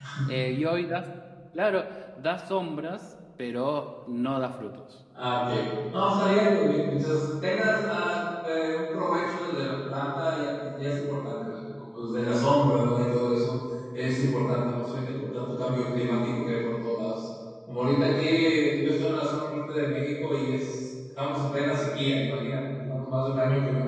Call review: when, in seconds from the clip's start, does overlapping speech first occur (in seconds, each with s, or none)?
none